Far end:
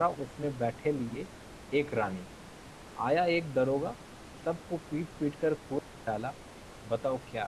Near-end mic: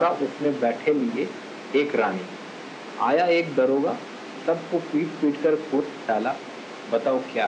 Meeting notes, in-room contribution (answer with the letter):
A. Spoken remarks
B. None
B